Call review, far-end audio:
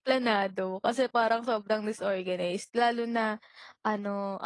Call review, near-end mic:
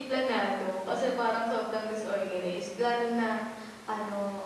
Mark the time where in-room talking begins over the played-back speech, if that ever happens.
none

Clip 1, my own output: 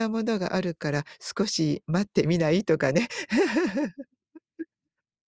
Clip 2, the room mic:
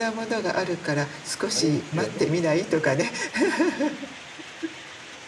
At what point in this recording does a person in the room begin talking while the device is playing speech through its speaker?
1.5 s

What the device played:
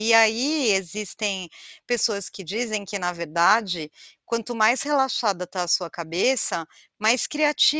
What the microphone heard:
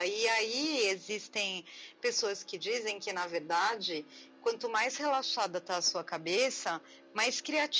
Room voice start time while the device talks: none

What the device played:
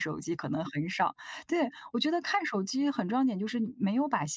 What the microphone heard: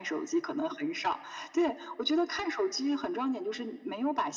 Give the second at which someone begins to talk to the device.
none

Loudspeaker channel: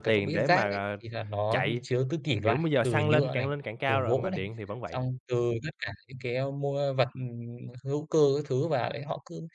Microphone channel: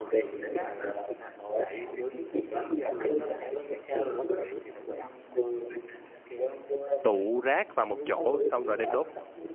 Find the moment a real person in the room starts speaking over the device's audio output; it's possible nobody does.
7.0 s

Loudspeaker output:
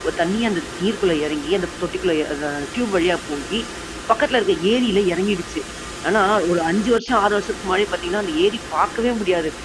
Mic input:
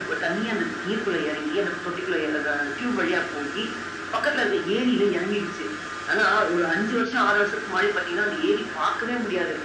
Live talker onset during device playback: none

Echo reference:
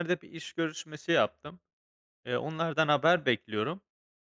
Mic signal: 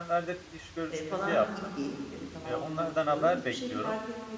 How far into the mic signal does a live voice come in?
0.9 s

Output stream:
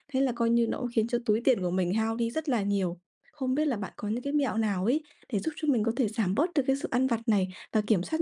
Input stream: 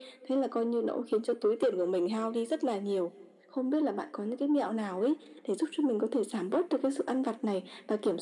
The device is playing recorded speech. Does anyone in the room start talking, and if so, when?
none

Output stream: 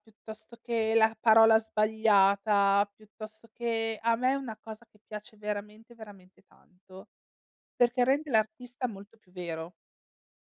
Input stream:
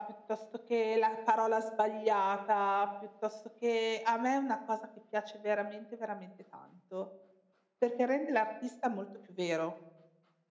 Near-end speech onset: none

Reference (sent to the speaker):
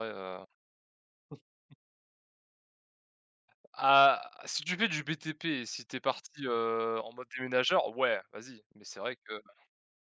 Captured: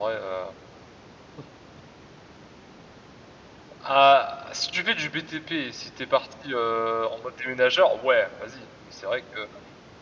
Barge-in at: none

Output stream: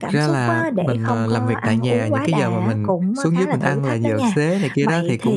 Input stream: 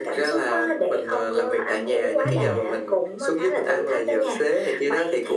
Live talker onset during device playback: 2.2 s

